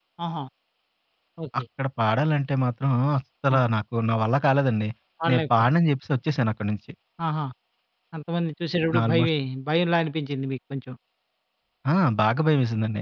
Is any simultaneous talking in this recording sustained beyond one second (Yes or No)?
No